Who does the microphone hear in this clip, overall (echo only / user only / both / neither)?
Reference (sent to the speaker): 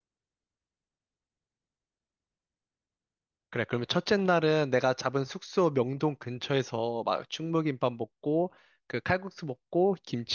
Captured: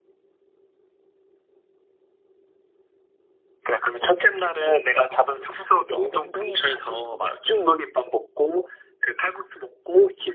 both